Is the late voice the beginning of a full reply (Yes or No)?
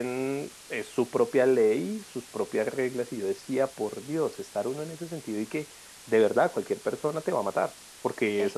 Yes